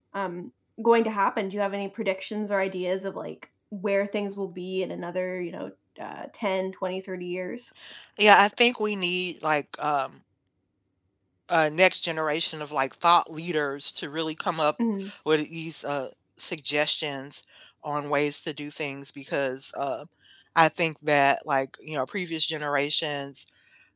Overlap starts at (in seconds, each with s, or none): none